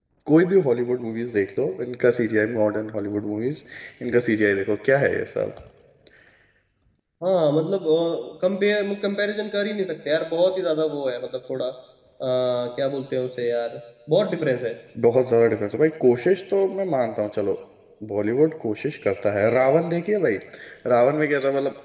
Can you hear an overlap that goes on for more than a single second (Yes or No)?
No